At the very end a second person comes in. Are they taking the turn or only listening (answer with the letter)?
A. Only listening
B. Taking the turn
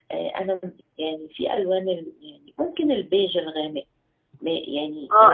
B